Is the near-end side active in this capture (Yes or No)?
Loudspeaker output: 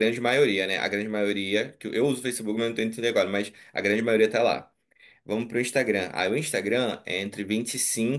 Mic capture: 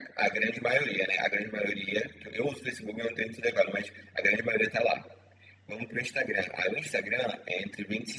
No